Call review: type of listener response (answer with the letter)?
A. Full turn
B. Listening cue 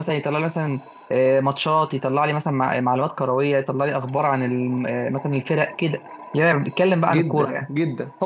A